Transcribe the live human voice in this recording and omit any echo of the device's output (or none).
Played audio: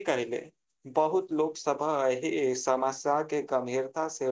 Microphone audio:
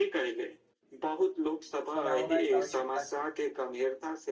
बनाओनाइ आवश्यकता छै